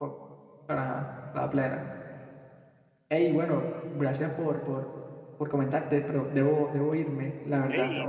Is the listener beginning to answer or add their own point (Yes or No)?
Yes